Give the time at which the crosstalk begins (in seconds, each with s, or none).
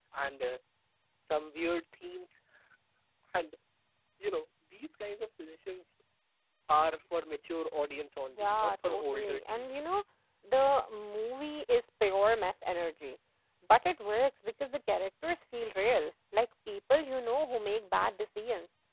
8.3 s